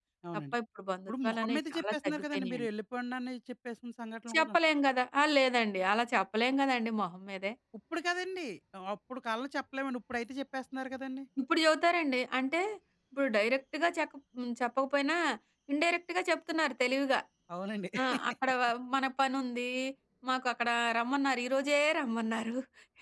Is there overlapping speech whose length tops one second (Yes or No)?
Yes